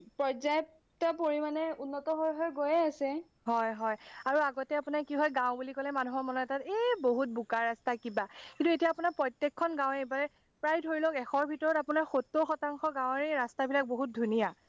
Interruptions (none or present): none